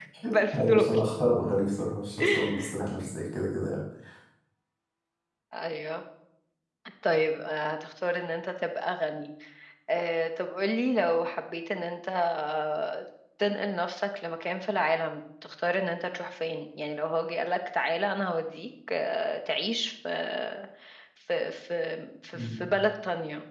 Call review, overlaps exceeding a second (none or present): none